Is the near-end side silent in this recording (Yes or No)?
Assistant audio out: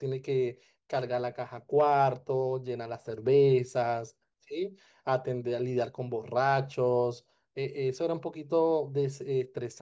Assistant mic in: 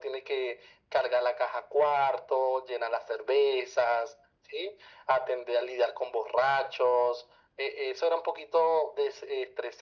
Yes